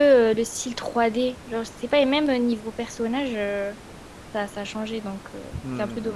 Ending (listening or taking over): taking over